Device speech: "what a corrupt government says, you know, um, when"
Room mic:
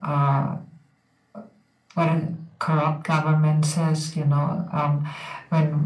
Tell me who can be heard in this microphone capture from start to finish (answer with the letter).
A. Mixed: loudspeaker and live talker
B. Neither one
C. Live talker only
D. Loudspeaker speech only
D